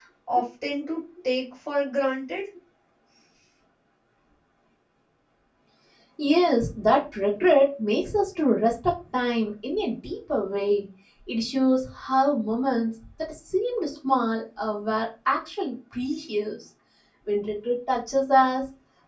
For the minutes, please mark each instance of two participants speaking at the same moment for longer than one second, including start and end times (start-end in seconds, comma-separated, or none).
none